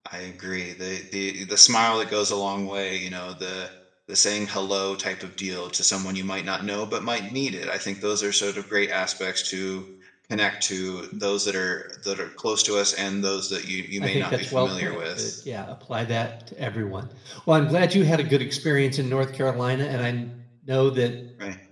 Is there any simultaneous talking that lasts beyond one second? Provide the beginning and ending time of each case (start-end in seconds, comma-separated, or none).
14.0-15.2